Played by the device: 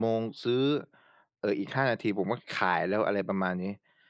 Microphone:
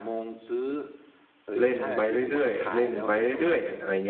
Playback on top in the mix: No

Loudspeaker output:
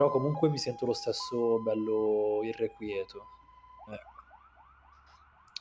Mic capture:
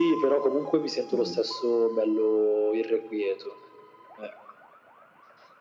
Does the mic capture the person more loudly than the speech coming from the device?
No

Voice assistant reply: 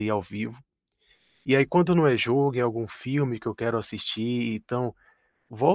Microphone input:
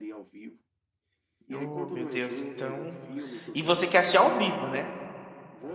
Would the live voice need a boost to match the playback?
No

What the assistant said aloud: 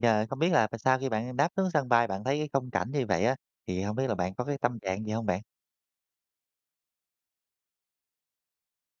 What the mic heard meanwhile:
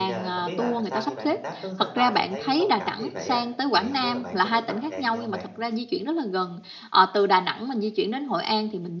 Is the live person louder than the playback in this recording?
Yes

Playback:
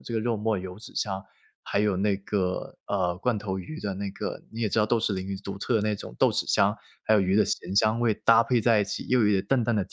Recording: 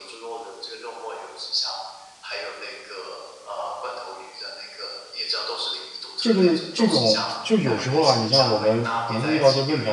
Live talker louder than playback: Yes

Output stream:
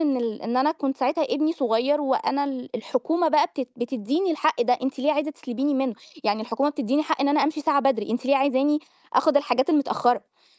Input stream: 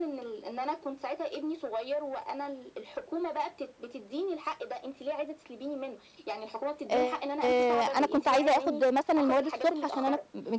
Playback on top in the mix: No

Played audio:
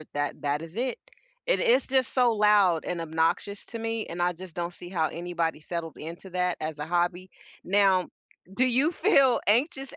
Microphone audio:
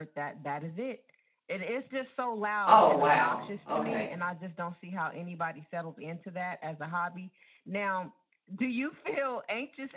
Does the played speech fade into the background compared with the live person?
Yes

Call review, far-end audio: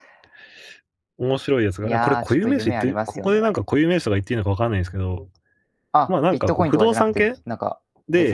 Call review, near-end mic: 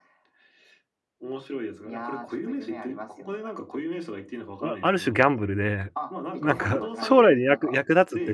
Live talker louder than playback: Yes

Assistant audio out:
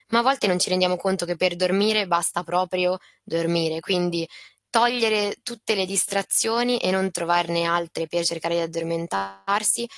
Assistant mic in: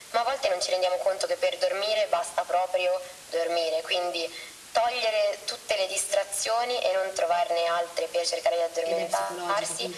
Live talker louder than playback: No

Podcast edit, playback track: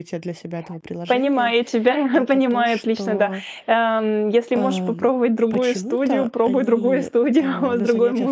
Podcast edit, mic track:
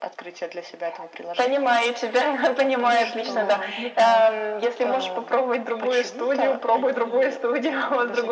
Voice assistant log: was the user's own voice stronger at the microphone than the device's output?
No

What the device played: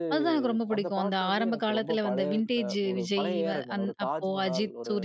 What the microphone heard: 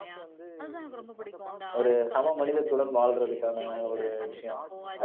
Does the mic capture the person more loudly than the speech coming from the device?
Yes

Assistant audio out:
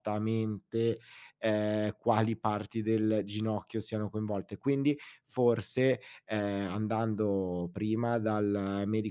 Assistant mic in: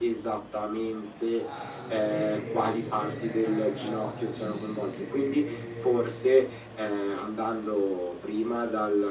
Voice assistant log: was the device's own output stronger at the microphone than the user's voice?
Yes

